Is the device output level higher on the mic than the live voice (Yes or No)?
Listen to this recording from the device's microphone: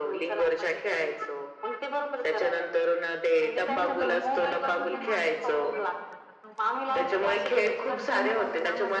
Yes